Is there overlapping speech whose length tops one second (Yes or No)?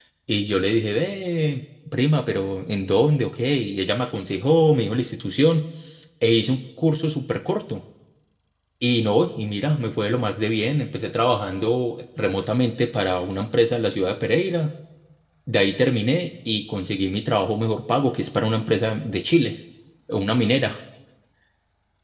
No